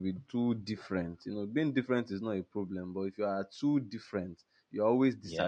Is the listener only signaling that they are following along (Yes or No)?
Yes